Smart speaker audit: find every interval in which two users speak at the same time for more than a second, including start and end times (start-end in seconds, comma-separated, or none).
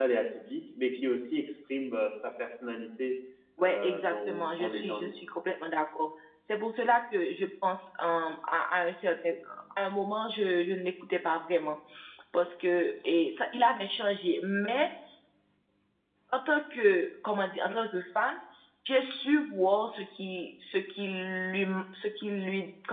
3.6-5.1